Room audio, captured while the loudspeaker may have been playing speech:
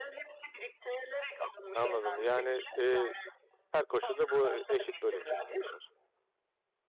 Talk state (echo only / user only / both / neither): both